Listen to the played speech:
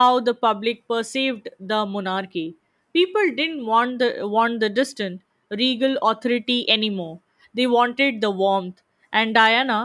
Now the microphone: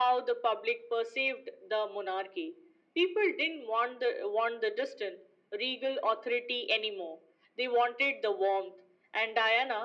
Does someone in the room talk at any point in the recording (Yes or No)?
No